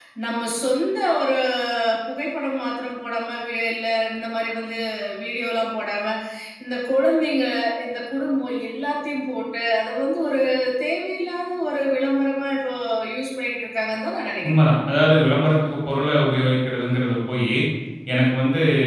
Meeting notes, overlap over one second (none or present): none